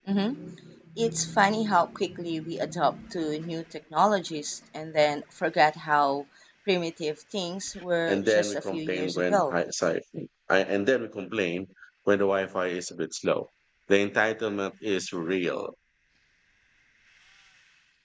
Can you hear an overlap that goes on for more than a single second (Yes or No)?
Yes